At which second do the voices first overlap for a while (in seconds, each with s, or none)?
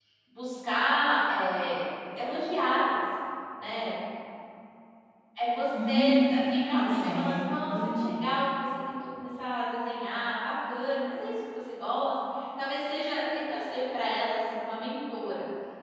5.8 s